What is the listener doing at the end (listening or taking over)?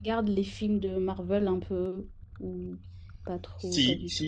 taking over